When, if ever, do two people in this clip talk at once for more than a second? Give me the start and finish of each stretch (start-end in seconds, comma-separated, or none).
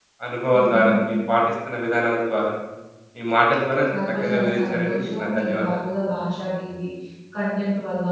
4.2-5.8